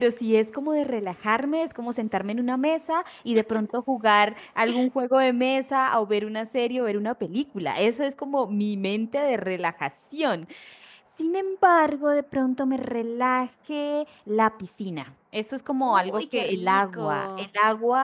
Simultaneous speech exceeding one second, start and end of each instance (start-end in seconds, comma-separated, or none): 15.8-17.5